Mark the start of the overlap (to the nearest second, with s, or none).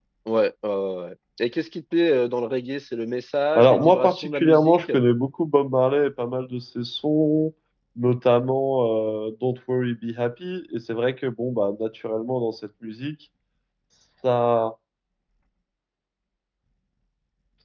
4 s